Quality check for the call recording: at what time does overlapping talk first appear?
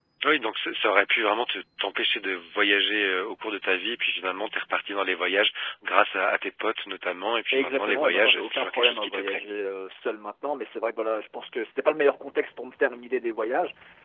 7.5 s

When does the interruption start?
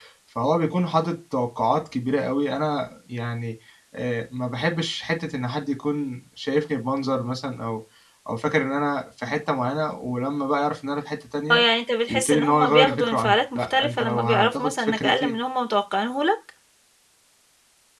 12.1 s

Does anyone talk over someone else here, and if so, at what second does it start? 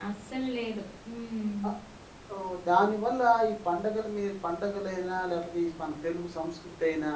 none

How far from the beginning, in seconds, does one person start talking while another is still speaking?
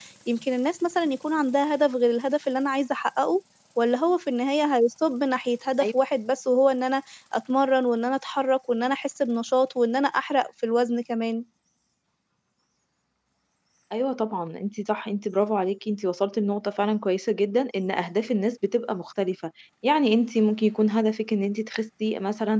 none

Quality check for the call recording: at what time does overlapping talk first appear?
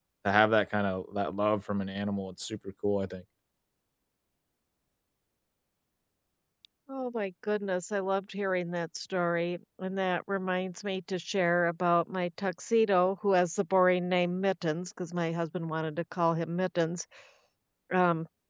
none

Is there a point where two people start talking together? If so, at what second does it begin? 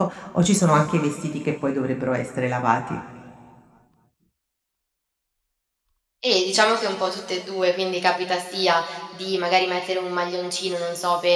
none

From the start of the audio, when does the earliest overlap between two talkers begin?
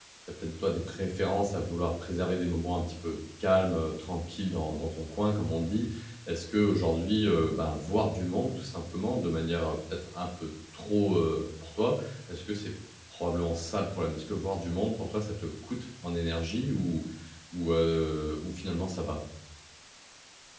none

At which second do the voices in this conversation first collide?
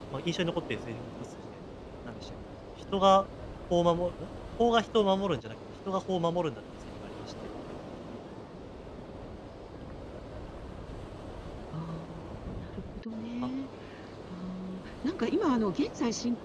none

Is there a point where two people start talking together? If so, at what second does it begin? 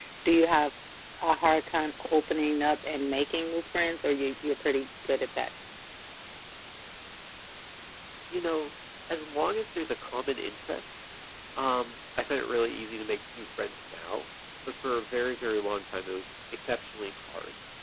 none

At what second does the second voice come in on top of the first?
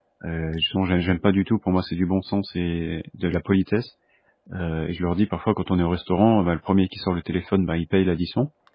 none

